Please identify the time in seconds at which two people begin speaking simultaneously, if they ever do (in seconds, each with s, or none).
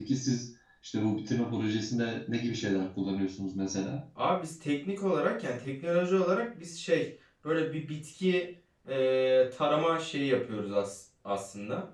none